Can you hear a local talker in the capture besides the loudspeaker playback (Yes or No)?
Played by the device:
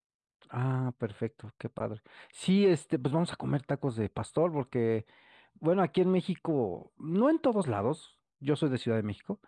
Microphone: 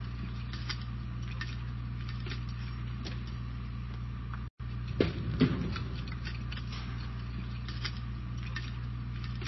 No